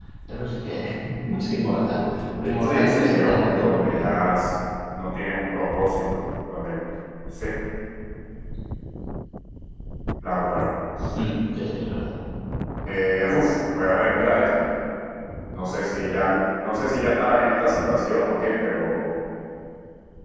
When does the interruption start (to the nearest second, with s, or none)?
3 s